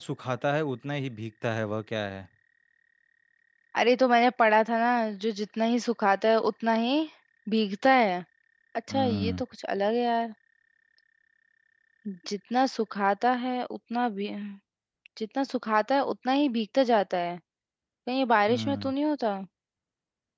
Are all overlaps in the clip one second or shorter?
Yes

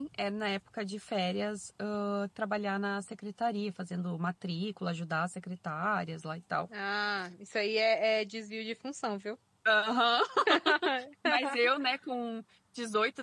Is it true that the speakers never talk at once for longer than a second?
Yes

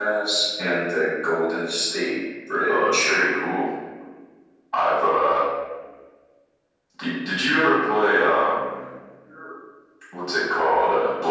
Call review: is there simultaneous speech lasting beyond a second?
No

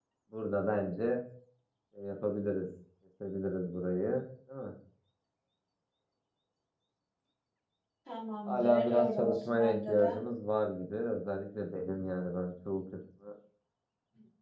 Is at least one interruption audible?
Yes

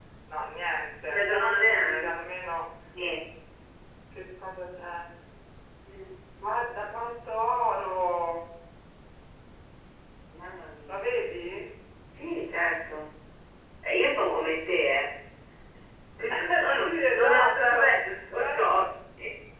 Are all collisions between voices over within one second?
No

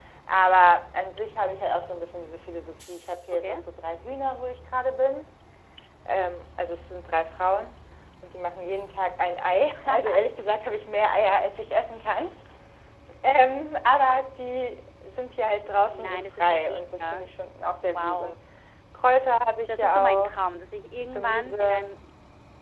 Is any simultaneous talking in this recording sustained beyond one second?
Yes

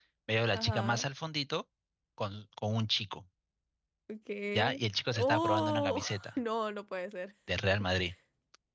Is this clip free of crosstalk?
No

